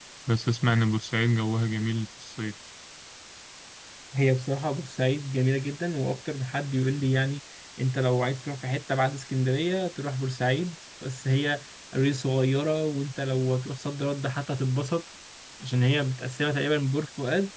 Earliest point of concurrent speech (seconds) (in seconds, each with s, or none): none